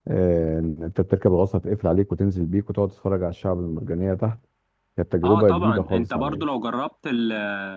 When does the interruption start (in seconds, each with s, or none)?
5.2 s